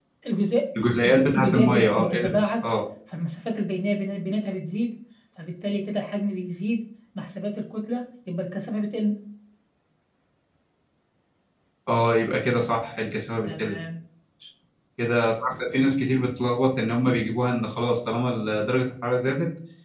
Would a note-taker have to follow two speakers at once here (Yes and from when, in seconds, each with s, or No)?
Yes, from 1.0 s